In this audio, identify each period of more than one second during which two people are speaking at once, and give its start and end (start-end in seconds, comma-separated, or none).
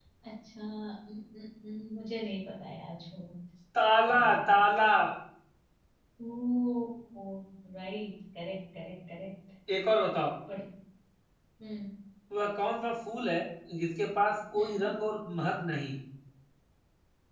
none